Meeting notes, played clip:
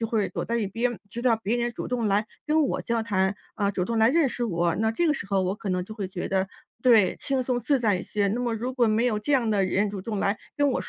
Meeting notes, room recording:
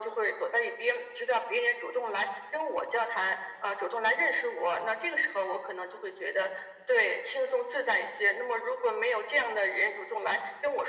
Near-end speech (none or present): none